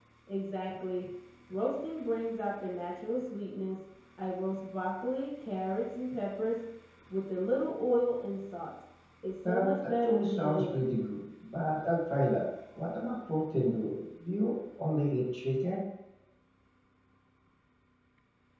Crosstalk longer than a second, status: present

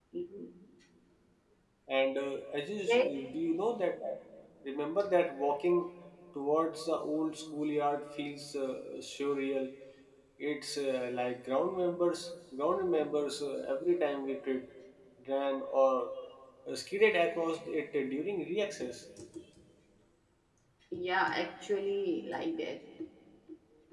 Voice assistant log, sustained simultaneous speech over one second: none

